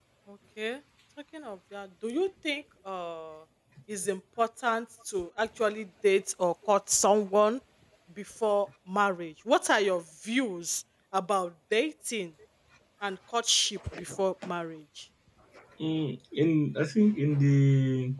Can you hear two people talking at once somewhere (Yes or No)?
No